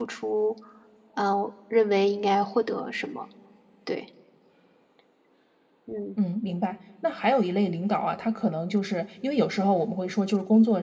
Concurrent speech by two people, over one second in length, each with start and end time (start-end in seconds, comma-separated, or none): none